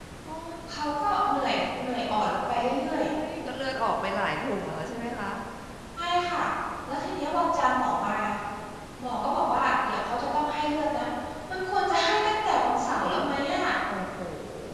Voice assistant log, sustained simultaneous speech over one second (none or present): none